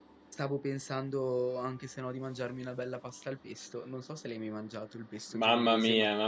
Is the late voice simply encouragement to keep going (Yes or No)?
No